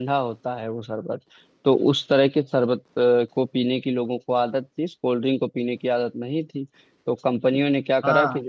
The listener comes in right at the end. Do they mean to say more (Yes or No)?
Yes